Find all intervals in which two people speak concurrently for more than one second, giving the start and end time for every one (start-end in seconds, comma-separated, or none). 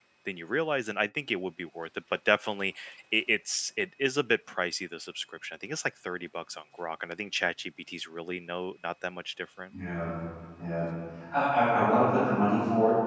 none